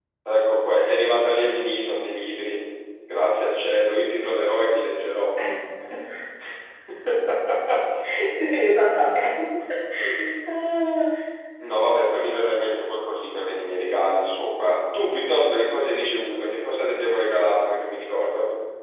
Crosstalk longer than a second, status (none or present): none